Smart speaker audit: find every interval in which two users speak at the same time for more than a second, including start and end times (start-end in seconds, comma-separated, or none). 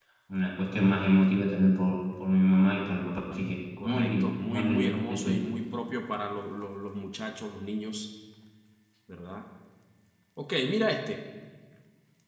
3.8-5.4